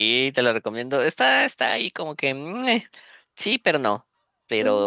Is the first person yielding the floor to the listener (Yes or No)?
No